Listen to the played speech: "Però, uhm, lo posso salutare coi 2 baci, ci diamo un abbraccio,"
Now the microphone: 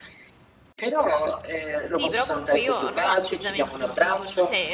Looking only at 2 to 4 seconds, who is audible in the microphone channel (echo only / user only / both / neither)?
both